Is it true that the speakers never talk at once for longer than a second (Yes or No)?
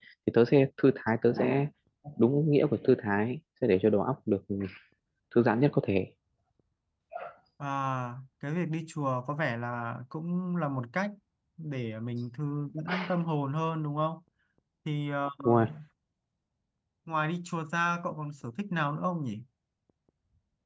Yes